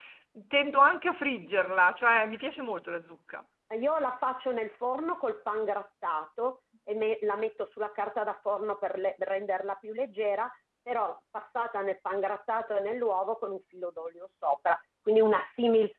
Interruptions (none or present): none